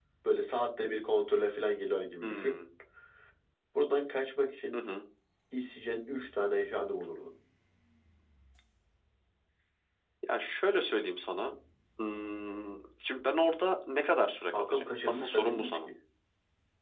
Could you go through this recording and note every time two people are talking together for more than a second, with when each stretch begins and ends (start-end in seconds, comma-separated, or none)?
14.5-15.8